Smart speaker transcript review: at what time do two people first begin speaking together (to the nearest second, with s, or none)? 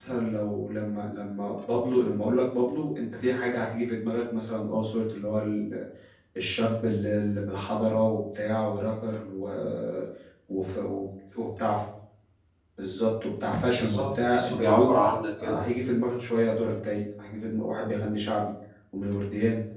14 s